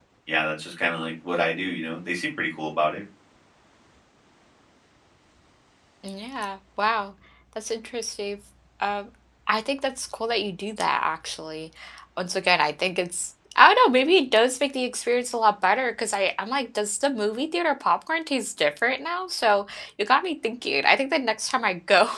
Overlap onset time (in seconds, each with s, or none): none